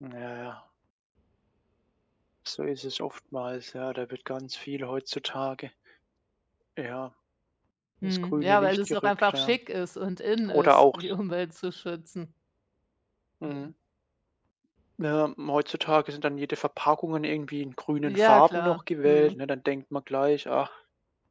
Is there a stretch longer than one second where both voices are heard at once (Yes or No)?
Yes